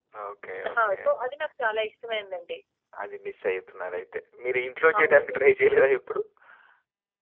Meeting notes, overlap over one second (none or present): none